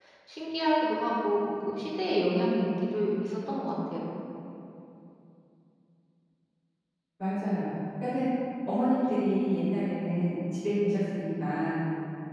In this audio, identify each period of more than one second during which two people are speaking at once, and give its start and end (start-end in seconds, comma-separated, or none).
none